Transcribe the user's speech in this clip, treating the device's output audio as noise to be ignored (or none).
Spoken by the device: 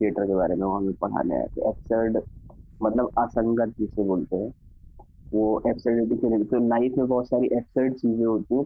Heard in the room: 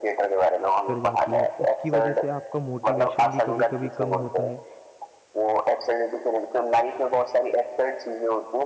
कर जाती है? उसकी वजह से आपका मोटिवेशन भी कभी-कभी कम होता है